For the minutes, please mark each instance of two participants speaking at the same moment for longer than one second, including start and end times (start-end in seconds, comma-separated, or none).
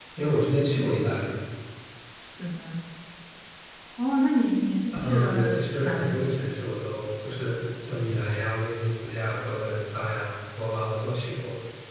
5.1-6.3